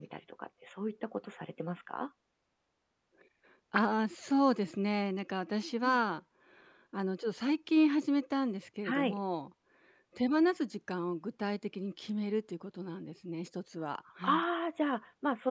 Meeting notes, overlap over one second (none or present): none